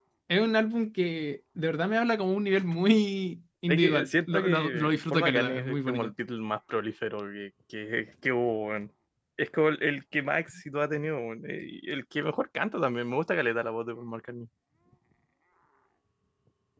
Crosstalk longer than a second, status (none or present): present